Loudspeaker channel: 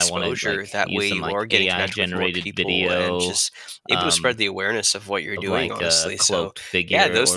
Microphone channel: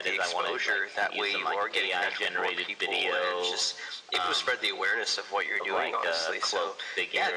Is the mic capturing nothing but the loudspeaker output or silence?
Yes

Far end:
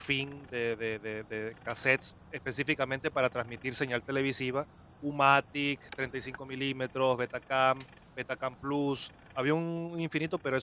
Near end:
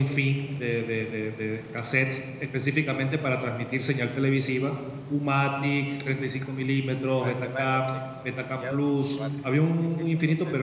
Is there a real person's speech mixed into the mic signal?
Yes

